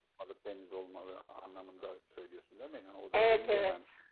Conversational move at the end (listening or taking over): taking over